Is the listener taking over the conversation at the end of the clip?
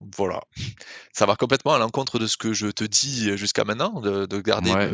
Yes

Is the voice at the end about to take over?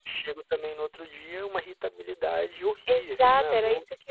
Yes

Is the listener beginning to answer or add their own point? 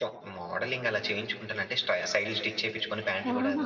No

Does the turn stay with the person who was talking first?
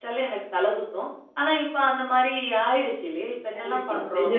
No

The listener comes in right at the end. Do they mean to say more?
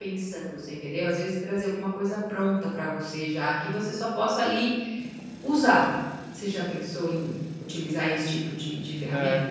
Yes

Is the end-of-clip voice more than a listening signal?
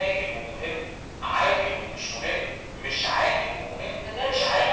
Yes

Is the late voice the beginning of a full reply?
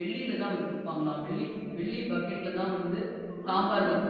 Yes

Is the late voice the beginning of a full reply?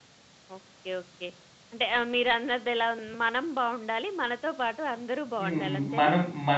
Yes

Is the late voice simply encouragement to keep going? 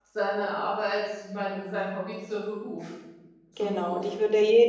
No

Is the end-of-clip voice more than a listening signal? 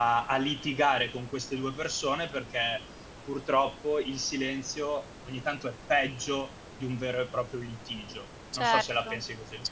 Yes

